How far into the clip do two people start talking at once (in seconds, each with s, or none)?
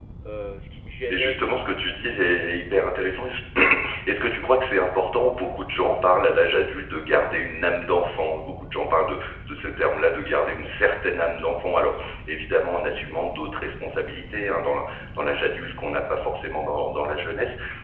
1.1 s